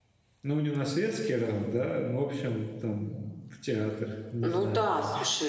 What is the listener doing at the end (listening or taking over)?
taking over